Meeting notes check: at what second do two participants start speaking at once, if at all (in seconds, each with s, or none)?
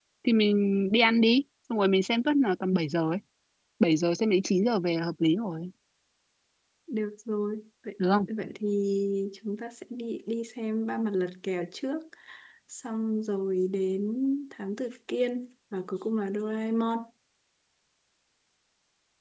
none